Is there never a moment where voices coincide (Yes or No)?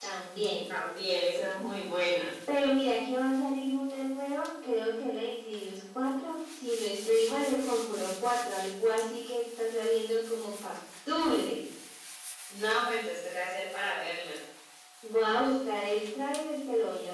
Yes